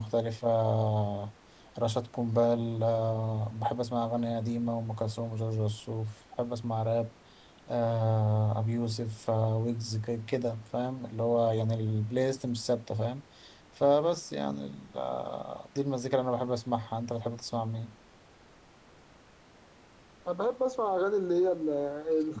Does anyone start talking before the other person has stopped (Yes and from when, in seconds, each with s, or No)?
No